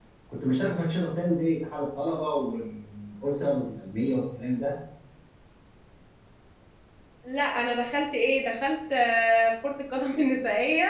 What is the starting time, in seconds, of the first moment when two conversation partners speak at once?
none

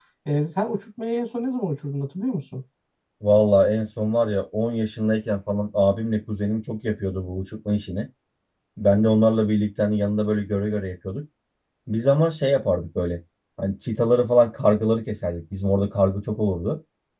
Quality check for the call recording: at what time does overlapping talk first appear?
none

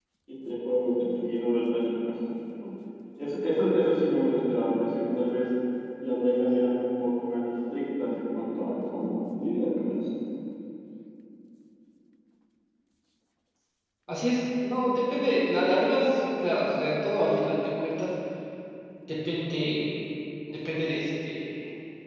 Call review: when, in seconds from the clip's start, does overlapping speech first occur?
none

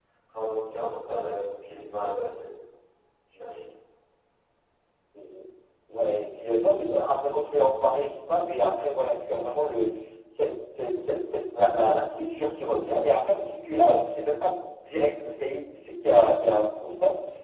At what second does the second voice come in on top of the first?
none

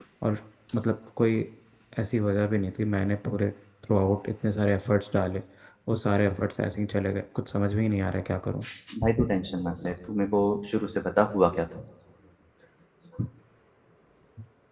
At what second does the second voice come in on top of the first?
none

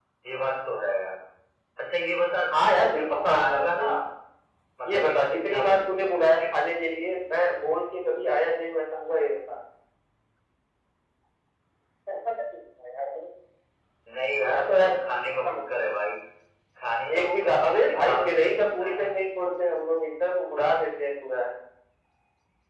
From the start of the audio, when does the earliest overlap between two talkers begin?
3 s

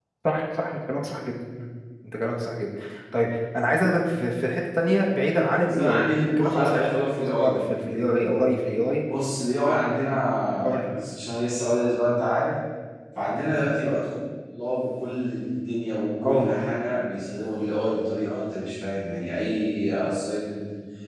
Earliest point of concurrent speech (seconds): 6 s

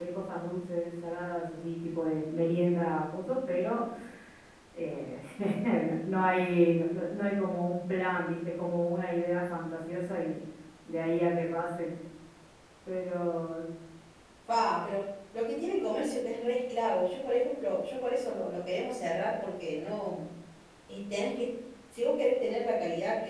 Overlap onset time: none

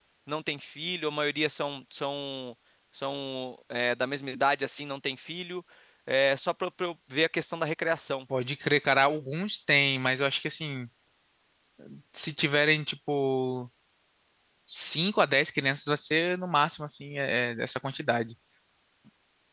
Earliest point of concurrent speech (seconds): none

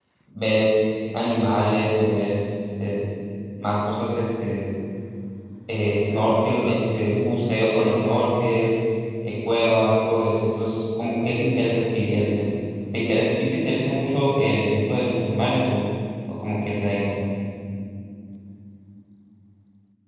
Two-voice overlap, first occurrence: none

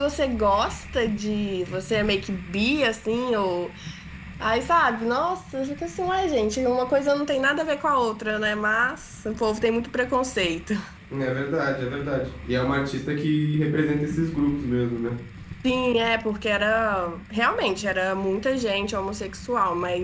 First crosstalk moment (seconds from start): none

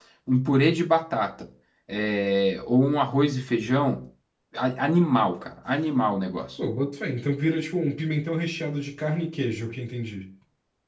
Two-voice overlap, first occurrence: none

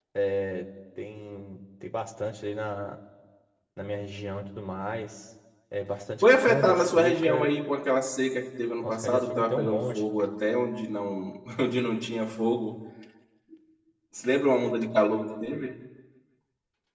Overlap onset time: 6 s

